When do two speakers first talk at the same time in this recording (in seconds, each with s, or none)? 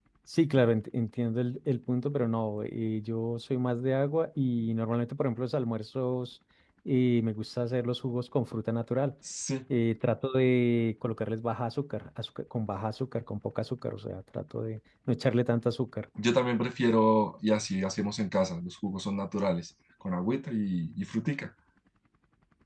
none